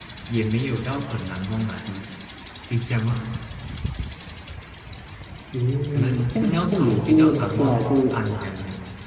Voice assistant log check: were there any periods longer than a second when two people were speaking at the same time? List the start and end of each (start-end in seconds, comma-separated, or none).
5.9-8.2